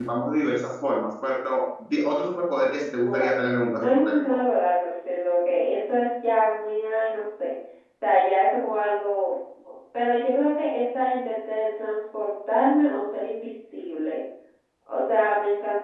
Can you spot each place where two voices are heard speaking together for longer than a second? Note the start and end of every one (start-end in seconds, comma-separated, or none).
3.0-4.4